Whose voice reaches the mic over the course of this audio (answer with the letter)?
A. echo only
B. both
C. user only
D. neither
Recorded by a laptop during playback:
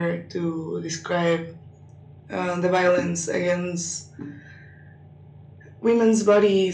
A